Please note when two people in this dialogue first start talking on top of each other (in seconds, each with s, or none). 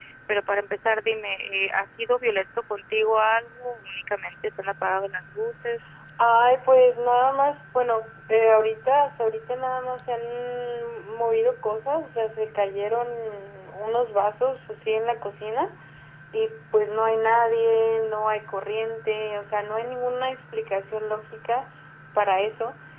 none